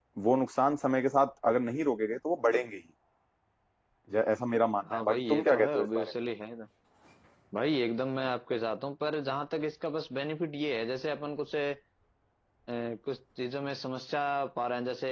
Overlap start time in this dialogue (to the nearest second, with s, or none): 5 s